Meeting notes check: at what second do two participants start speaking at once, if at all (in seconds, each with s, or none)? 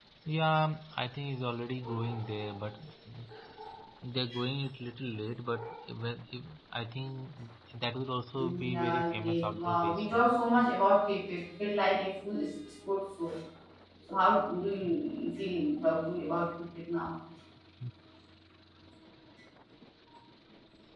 8.4 s